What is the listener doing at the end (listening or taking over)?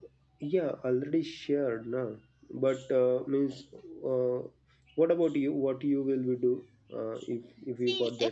taking over